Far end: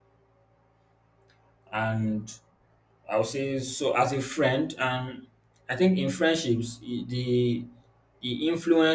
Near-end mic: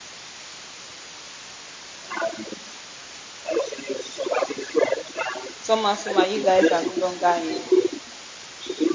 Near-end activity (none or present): present